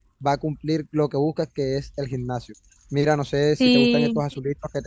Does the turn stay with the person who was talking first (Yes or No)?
Yes